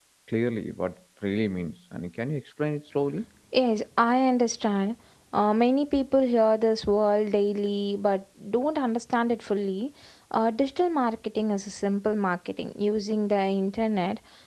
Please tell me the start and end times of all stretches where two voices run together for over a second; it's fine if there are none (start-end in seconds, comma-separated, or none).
none